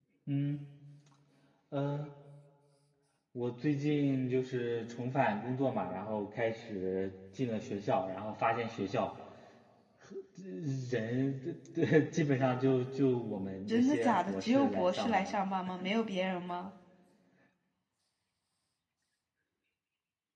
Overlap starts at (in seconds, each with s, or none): 13.7 s